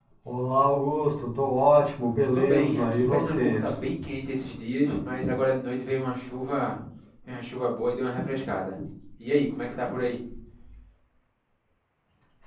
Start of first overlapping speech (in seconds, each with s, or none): 2.3 s